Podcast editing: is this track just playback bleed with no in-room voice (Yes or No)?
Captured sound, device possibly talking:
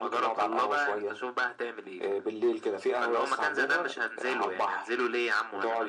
Yes